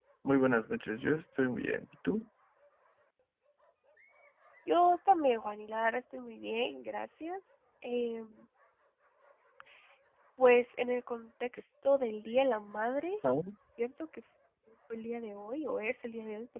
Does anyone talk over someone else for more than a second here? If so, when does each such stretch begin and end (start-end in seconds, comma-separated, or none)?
none